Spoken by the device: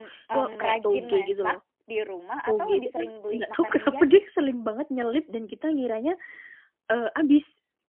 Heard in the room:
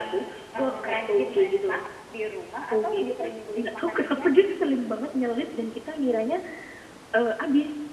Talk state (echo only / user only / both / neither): echo only